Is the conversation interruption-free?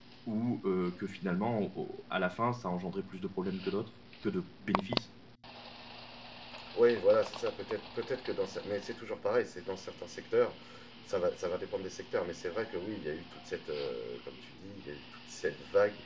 Yes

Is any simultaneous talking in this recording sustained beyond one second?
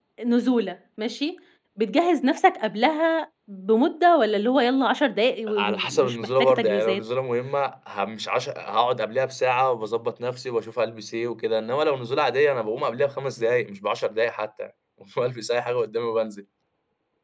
Yes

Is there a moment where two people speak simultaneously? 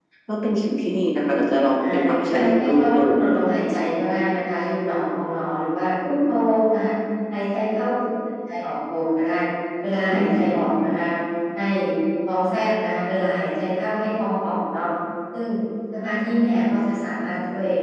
Yes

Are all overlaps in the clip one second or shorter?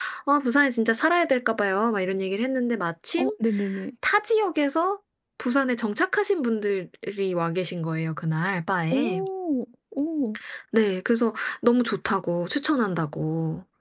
Yes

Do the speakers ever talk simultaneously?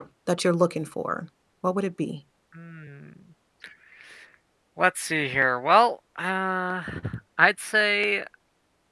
No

